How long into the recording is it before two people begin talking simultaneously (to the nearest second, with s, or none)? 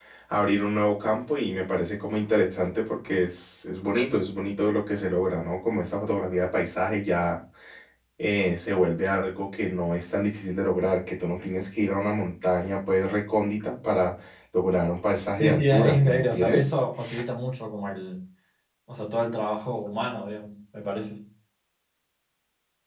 15 s